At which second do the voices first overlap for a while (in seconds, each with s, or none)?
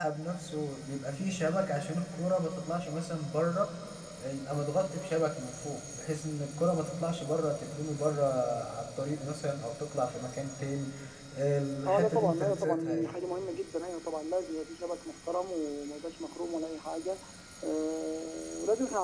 11.9 s